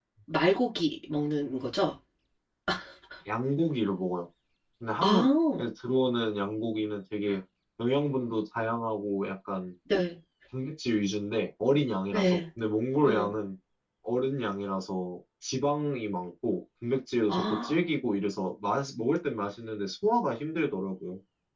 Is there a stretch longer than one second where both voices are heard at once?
No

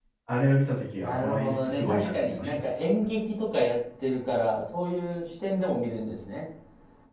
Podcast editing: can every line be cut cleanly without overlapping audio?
No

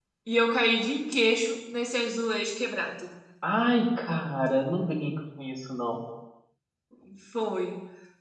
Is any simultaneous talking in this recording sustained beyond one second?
No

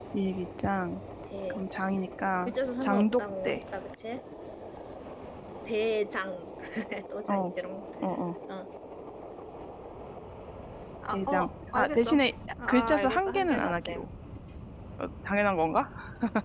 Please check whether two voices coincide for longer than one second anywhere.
Yes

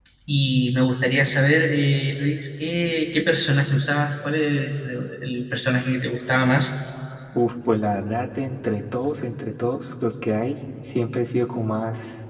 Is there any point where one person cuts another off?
No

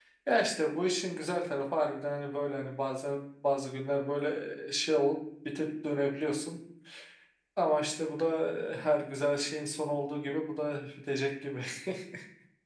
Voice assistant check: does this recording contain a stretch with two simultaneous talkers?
No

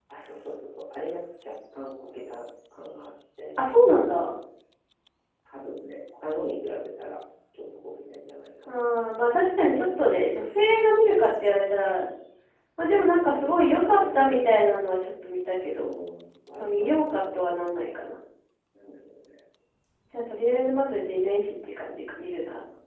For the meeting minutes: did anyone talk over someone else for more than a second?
Yes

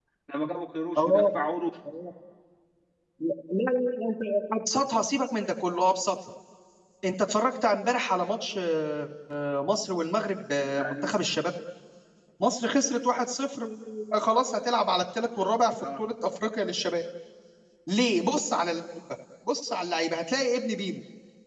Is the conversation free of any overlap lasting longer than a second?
Yes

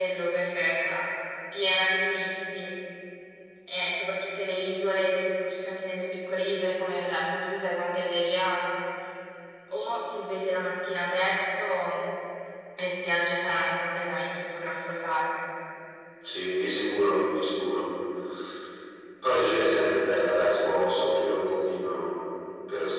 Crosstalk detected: No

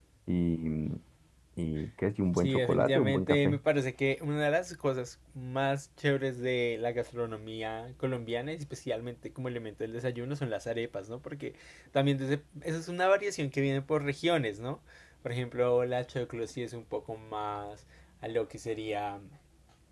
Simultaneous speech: Yes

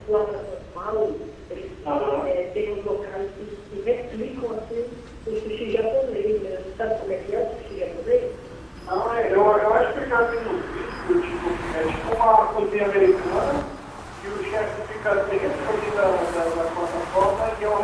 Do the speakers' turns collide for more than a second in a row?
No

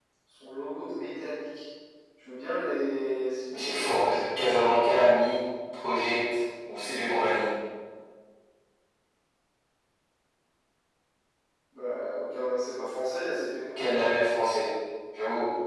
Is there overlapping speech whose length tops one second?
Yes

